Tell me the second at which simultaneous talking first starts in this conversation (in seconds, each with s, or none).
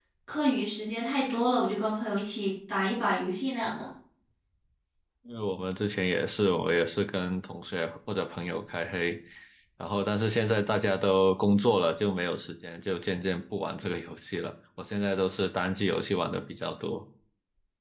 none